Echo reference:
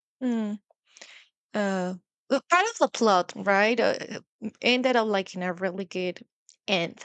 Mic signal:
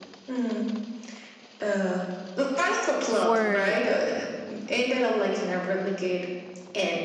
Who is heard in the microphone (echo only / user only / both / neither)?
both